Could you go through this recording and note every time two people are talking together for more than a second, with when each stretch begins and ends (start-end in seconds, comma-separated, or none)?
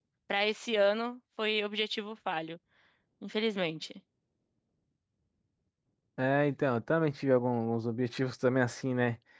none